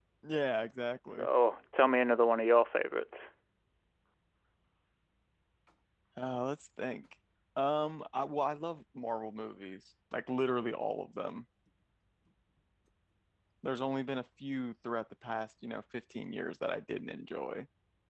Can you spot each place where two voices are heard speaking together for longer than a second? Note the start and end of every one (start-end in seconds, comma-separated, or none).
none